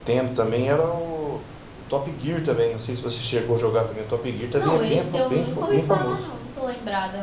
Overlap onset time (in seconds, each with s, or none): 4.6 s